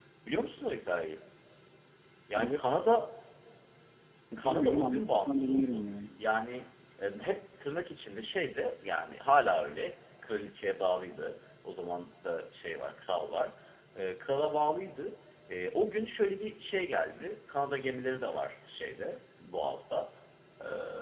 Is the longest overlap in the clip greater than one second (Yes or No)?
Yes